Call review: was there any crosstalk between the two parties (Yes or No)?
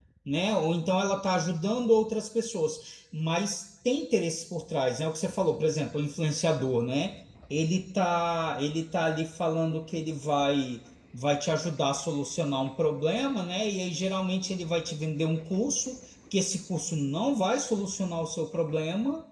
No